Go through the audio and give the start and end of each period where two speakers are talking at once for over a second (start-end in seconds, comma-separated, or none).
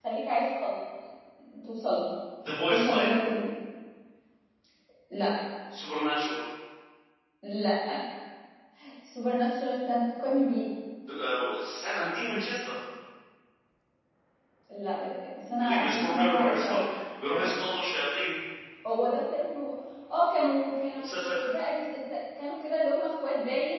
15.6-16.8